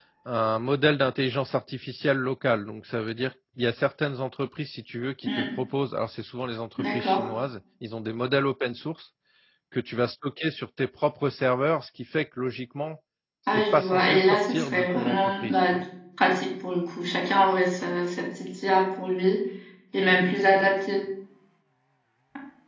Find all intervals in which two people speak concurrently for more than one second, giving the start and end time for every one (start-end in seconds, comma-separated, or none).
13.5-15.7